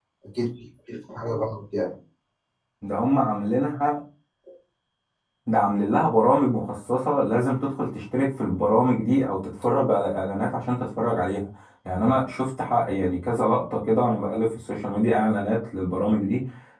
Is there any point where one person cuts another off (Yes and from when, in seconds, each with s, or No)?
No